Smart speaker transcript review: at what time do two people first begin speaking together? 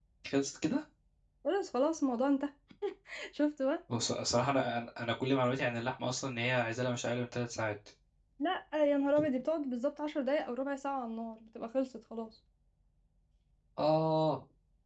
none

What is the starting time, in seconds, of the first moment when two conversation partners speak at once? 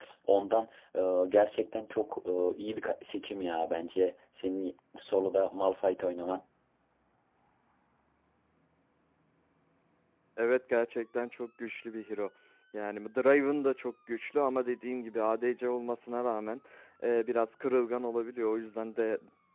none

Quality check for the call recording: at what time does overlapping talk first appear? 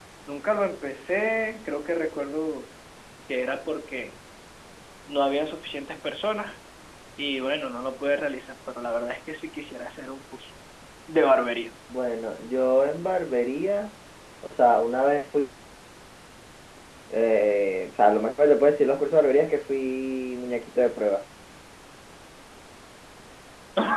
none

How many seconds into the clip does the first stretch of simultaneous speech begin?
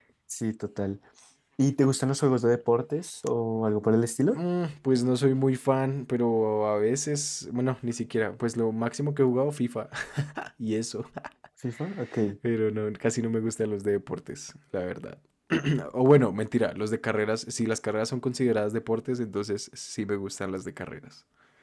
none

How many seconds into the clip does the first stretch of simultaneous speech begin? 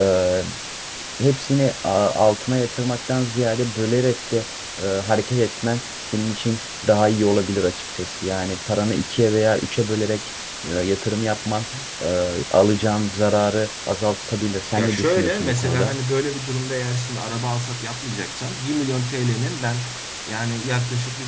15 s

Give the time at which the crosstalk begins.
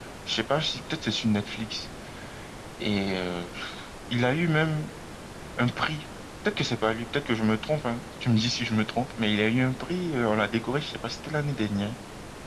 none

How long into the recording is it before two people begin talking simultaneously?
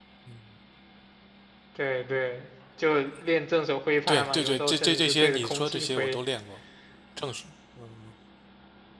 4 s

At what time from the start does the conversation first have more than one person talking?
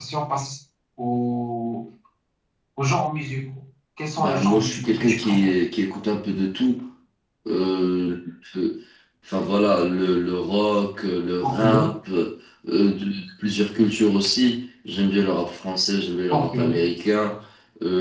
4 s

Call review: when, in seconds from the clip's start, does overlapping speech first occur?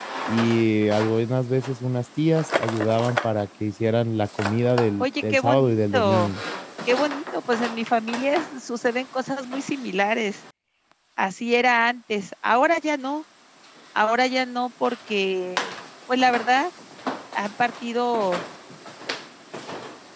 5 s

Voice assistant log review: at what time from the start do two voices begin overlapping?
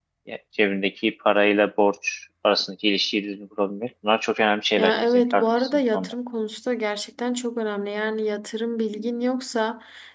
5 s

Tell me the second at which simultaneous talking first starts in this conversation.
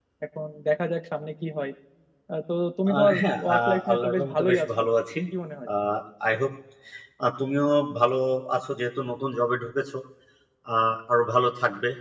3 s

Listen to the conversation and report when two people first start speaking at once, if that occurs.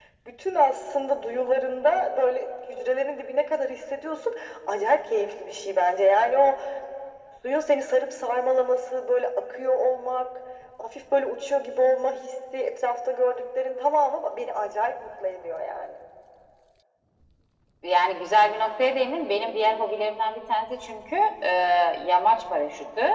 none

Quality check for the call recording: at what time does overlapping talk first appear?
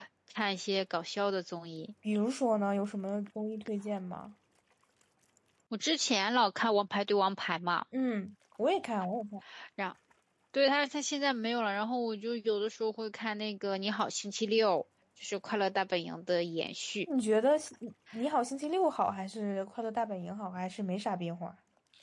none

